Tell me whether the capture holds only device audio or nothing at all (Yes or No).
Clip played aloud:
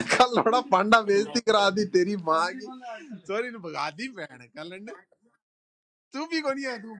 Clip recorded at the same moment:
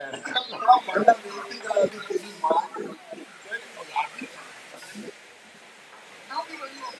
Yes